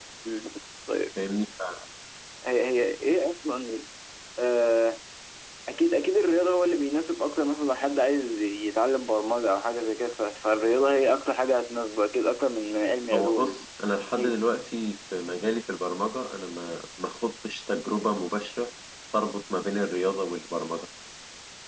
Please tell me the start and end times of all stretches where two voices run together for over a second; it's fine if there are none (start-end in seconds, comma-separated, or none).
none